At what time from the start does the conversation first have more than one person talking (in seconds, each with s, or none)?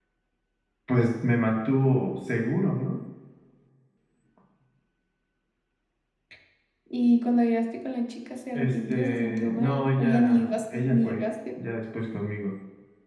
8.5 s